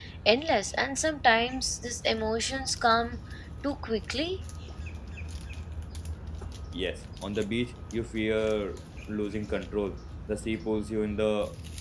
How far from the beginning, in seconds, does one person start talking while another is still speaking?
none

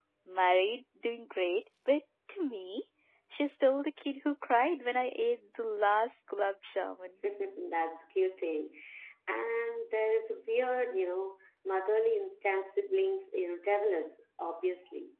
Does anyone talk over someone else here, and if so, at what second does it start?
none

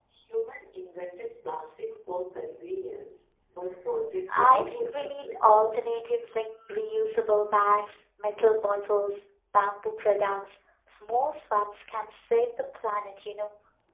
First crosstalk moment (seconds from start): 4.3 s

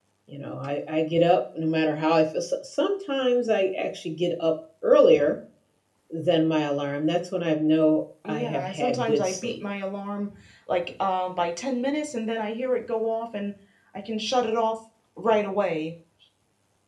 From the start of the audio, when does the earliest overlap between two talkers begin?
8.2 s

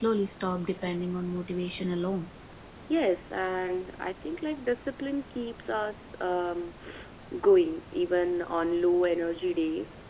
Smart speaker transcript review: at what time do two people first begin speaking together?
none

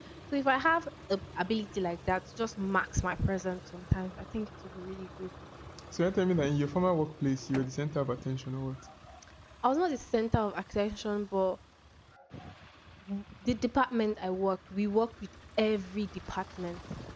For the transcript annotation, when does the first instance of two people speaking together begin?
none

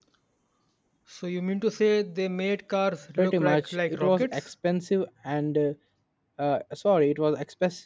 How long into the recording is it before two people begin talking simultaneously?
3.2 s

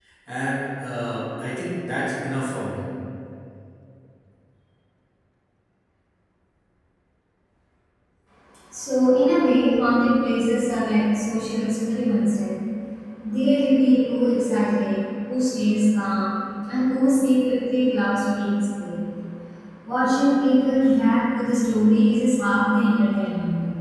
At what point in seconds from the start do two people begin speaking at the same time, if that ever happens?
none

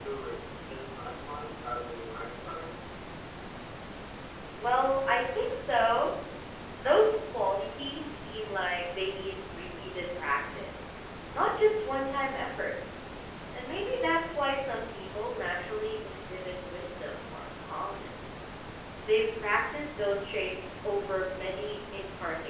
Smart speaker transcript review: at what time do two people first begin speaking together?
none

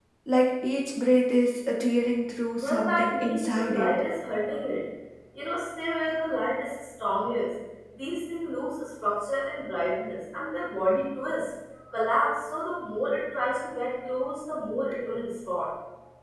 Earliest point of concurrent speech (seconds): 2.6 s

